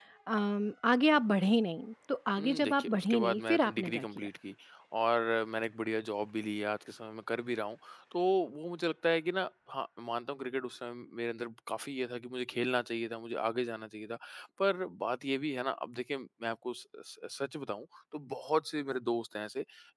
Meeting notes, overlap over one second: present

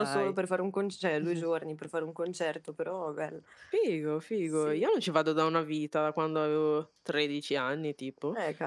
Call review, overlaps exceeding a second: none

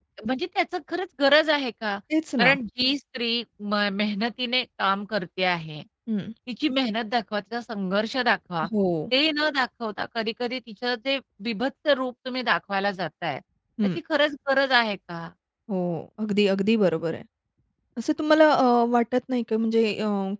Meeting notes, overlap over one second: none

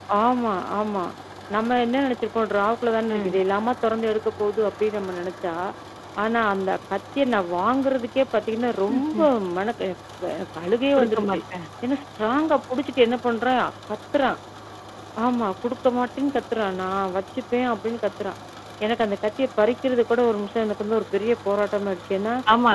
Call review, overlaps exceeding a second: none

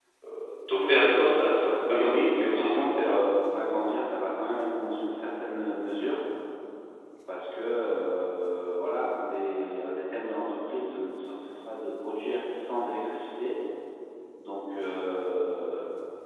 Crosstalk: present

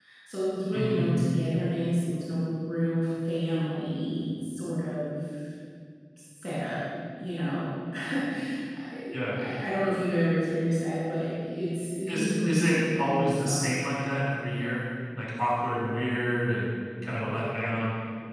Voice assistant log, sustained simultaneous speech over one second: present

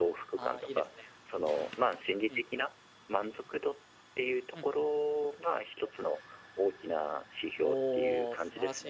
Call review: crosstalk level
present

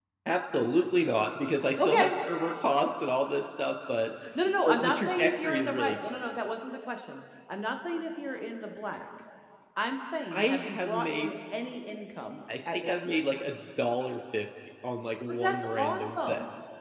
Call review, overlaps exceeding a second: present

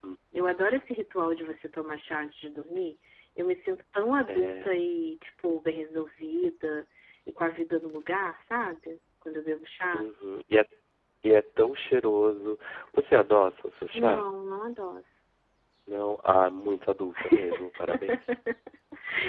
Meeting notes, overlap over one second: none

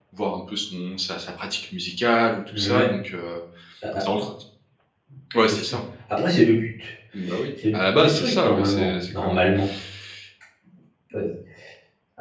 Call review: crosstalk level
present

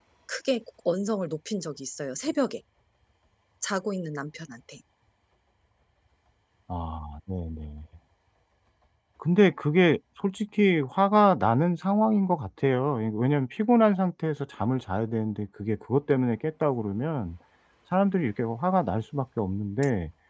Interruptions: none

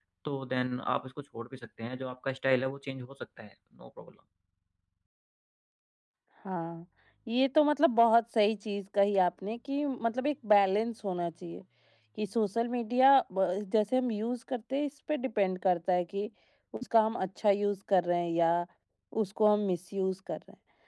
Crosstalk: none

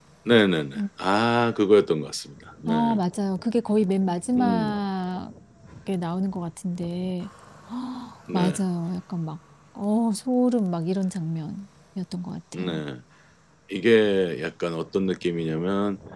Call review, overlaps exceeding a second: none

